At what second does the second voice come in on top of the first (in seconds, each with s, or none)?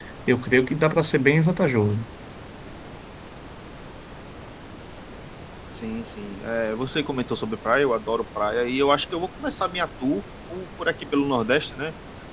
none